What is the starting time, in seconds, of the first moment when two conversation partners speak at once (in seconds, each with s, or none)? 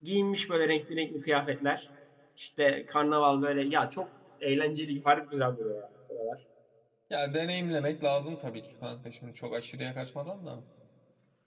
none